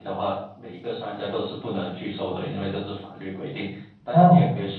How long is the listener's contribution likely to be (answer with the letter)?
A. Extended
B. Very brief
B